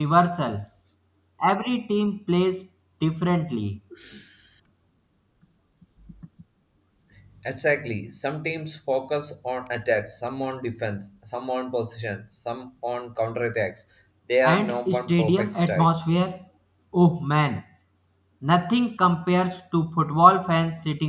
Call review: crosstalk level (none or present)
present